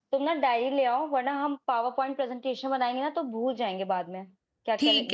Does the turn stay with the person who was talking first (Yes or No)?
No